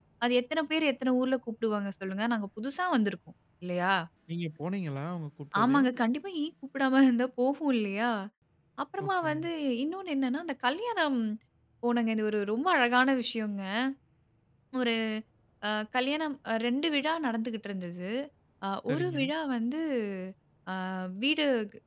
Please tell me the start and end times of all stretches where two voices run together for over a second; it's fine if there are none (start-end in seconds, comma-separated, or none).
none